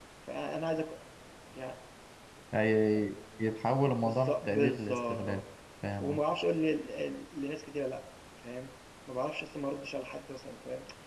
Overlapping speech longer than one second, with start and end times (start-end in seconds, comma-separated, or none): 3.9-5.4